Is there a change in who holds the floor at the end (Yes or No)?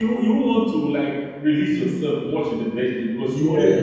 No